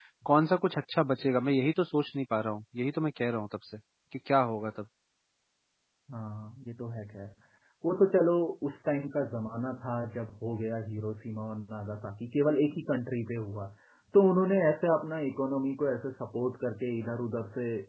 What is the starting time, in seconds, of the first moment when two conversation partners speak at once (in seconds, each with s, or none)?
none